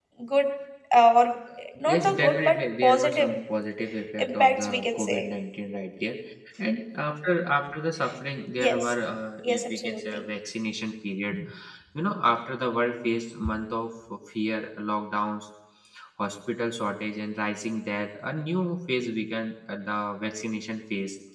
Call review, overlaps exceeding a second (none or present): present